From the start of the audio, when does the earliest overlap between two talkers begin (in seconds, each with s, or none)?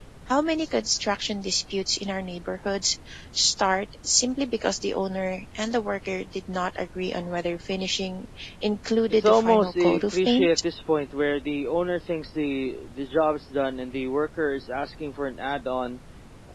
9.1 s